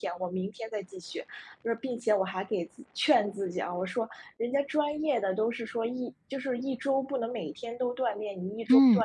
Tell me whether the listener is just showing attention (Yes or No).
Yes